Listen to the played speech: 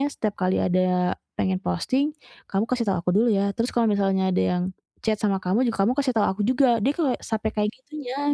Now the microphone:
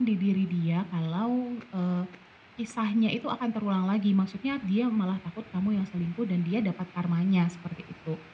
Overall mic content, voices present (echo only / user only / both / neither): user only